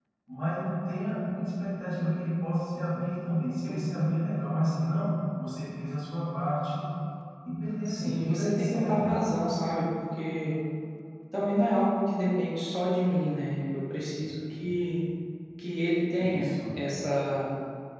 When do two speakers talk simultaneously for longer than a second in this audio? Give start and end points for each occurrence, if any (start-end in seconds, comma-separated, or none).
7.8-9.1